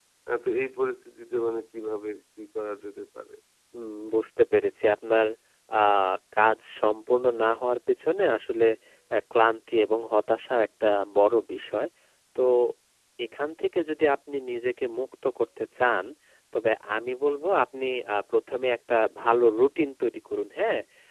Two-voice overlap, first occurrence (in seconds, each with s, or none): none